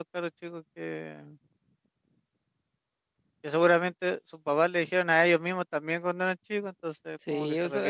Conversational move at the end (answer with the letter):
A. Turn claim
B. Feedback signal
A